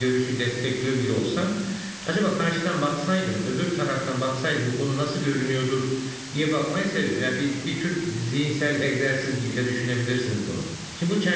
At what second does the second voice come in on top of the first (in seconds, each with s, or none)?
none